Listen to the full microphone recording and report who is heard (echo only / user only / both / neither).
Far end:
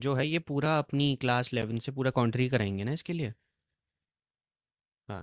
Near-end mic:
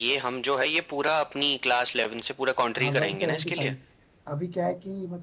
both